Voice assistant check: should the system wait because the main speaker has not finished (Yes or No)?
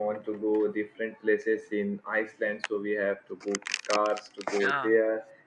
Yes